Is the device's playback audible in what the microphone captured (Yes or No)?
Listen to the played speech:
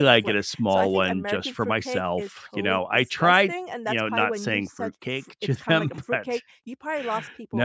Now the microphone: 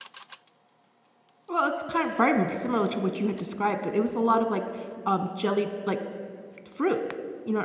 No